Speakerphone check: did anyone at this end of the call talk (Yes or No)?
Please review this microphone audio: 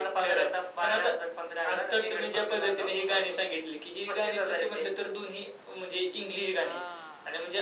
Yes